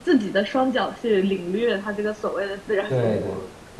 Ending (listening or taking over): taking over